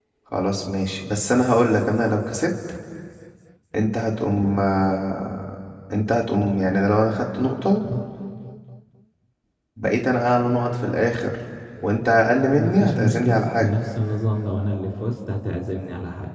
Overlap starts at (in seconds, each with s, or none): 12.5 s